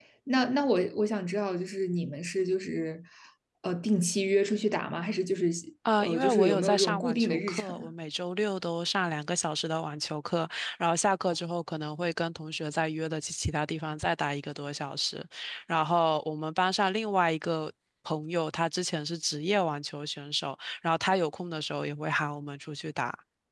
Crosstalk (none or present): present